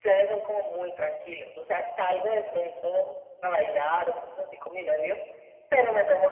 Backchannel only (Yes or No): Yes